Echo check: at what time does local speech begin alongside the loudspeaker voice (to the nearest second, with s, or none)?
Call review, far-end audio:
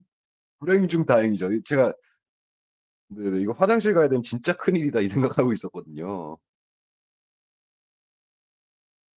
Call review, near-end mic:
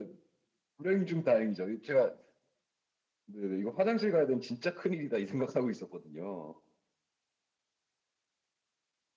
none